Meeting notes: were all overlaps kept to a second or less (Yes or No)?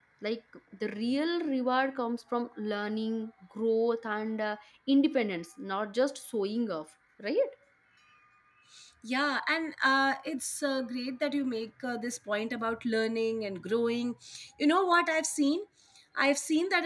Yes